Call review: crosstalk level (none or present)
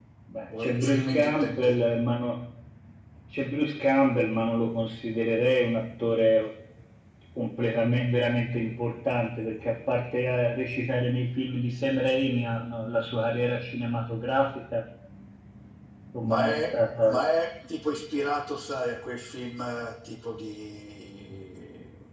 present